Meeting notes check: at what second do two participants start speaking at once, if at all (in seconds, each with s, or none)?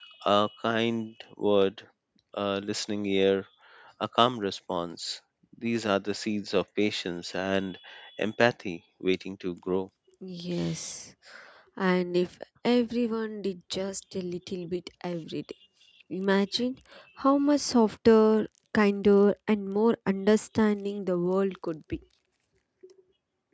none